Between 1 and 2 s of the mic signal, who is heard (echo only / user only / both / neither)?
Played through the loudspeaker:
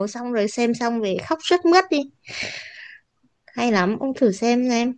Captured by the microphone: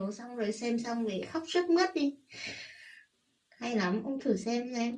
echo only